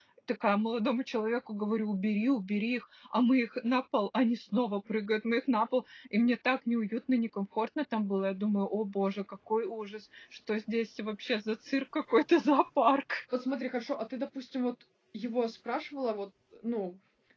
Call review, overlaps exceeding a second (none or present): none